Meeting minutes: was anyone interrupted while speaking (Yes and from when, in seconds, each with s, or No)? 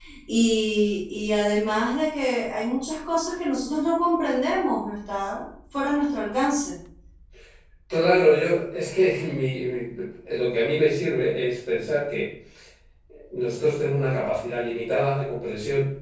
No